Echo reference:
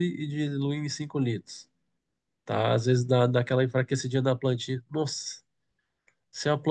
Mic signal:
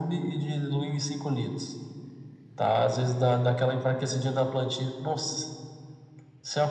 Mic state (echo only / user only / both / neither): echo only